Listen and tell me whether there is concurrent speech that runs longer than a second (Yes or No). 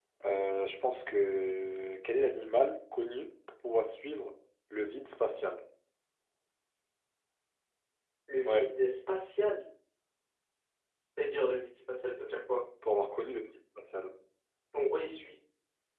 No